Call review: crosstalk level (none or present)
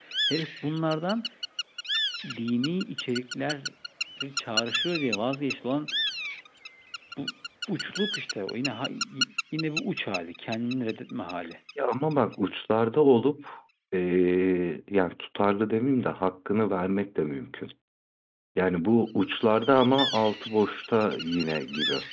none